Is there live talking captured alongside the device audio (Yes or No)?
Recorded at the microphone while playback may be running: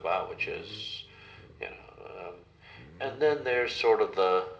No